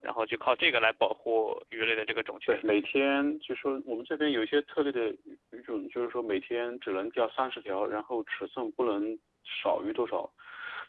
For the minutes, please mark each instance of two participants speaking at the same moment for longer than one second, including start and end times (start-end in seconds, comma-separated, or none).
none